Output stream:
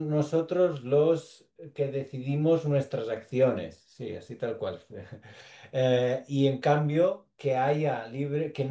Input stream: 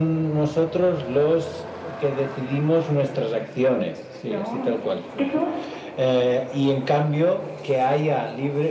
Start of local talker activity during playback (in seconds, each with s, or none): 4.2 s